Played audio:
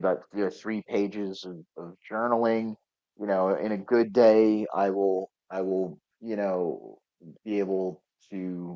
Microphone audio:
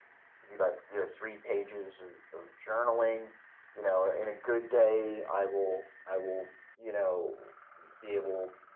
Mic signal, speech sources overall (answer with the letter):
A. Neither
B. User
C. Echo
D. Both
C